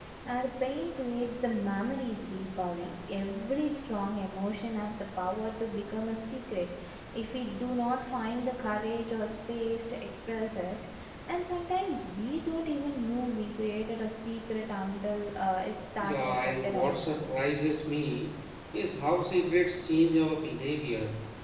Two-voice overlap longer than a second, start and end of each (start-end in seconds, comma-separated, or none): 16.0-17.4